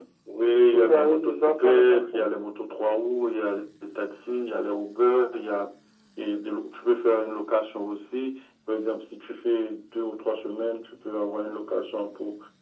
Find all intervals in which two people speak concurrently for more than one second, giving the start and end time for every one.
0.6-2.2

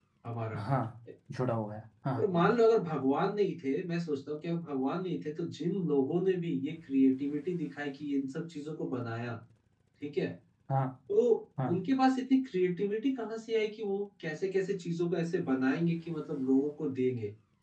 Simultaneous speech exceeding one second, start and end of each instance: none

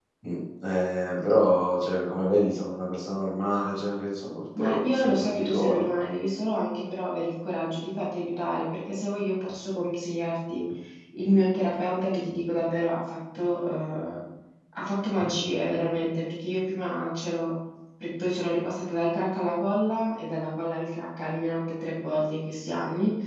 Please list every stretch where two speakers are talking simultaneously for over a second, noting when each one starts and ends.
4.6-5.9

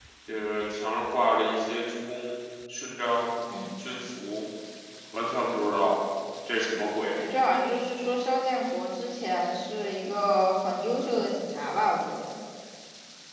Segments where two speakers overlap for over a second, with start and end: none

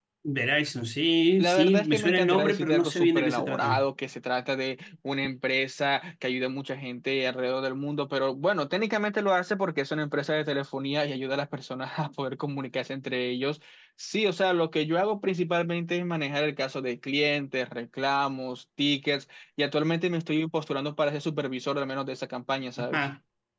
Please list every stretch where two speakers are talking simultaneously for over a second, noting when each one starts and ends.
1.4-3.8

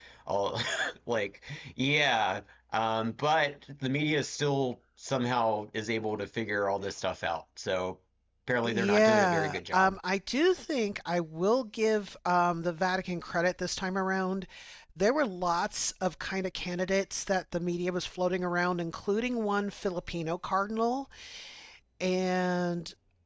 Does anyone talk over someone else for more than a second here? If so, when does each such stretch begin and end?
8.6-10.0

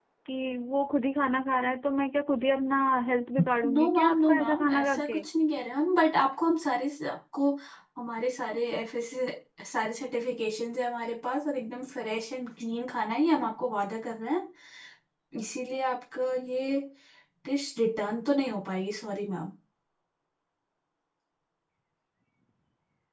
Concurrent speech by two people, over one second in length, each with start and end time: 3.6-5.2

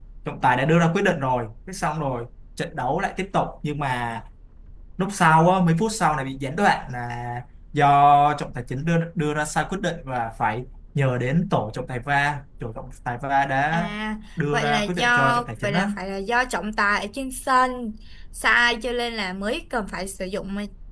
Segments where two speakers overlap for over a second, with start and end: 14.5-15.9

